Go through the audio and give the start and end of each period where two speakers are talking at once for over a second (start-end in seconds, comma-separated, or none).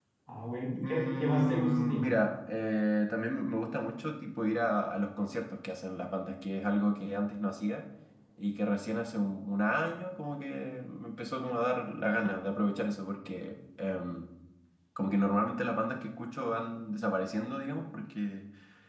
0.8-2.0